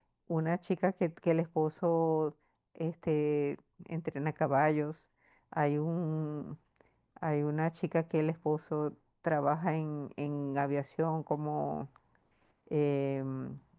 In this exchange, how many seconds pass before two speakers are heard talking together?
none

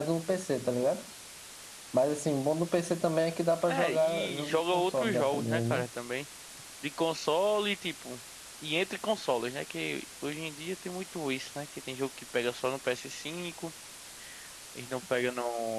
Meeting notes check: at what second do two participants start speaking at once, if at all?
3.7 s

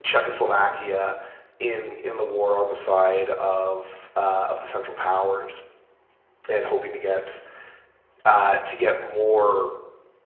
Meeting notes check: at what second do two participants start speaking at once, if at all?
none

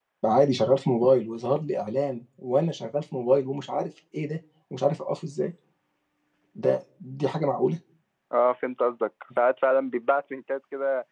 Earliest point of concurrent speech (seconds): none

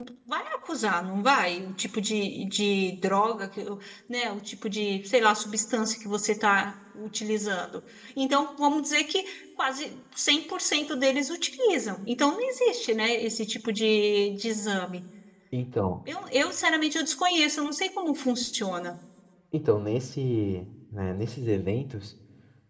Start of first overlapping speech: none

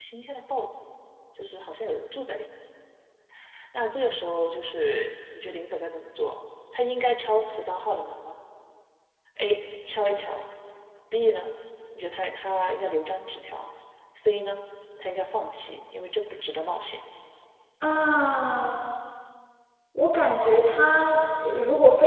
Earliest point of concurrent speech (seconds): none

